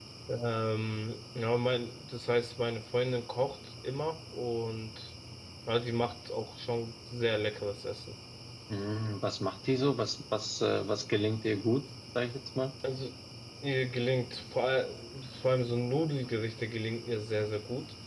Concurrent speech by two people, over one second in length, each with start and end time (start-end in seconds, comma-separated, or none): none